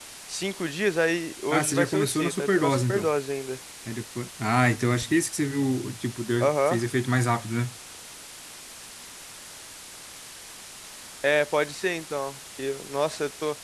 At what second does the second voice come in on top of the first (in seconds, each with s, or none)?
1.5 s